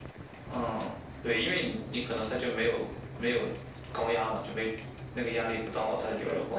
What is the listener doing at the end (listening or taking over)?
taking over